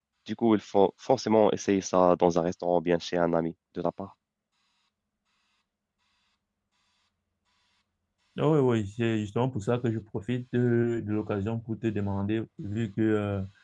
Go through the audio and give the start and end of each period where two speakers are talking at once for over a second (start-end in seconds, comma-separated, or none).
none